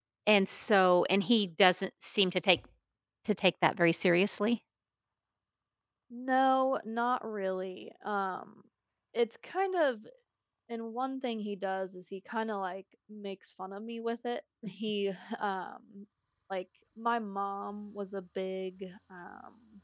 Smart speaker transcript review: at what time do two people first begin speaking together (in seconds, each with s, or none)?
none